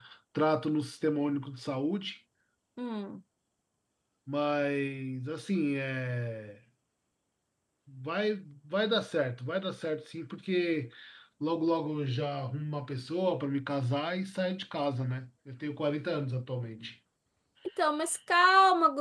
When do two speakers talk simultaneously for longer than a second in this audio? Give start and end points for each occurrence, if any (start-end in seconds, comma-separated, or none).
none